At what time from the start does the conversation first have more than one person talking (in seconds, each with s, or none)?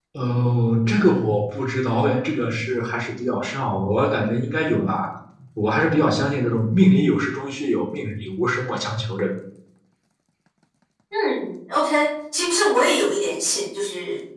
none